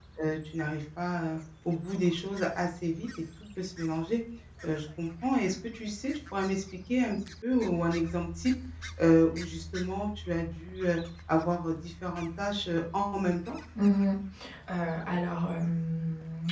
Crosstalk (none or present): none